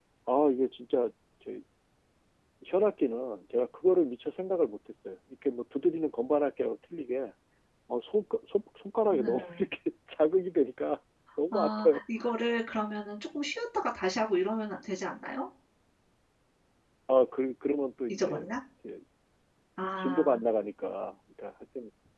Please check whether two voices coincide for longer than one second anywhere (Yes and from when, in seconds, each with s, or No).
No